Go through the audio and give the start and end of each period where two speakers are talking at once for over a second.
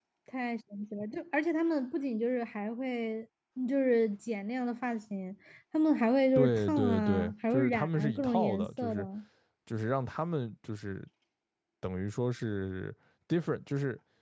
6.4-9.0

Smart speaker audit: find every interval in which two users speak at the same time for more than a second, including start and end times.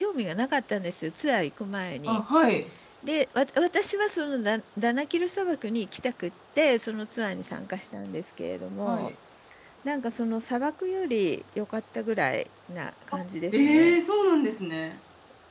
none

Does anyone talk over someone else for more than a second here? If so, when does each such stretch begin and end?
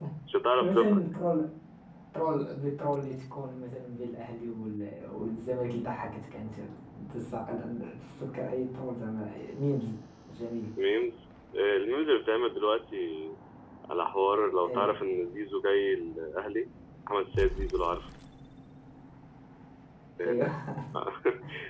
none

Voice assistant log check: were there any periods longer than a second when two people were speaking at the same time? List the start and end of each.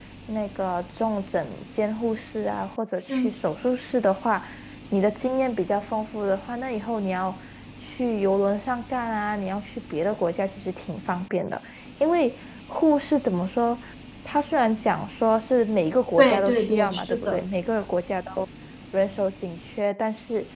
16.2-17.4

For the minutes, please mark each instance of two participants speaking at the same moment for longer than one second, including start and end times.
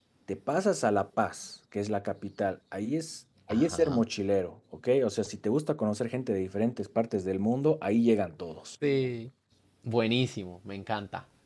none

